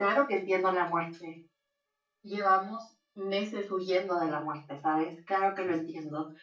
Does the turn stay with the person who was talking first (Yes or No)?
Yes